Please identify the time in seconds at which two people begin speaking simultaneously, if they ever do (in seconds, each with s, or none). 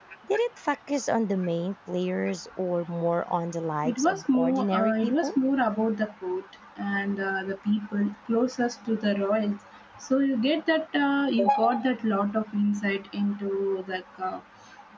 3.8 s